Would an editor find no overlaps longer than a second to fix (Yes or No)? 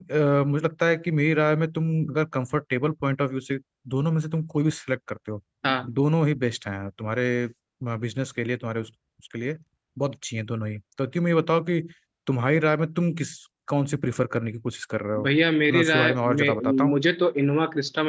No